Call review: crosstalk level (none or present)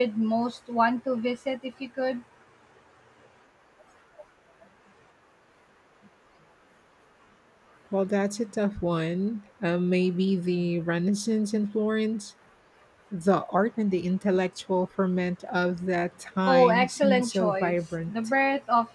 present